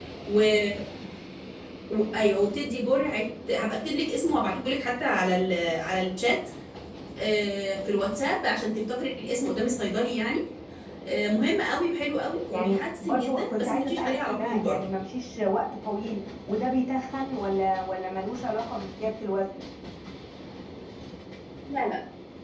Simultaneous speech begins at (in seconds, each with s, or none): 12.5 s